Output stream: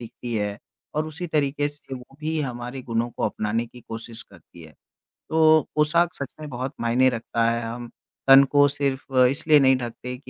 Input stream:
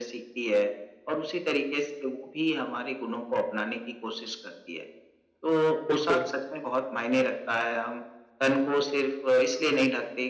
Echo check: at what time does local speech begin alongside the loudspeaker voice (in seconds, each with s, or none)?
5.9 s